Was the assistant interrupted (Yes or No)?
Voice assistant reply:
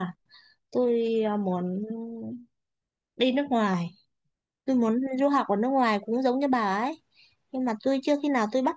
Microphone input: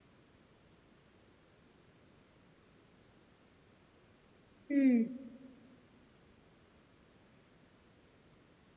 Yes